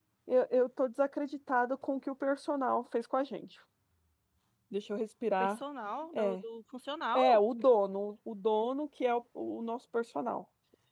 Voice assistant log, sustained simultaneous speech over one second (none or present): none